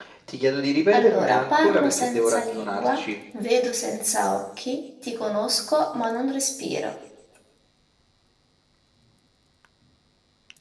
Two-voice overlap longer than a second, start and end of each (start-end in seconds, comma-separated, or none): 0.9-3.0